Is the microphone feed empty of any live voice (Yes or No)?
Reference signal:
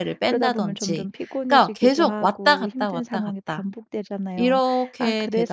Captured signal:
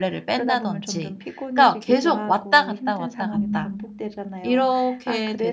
No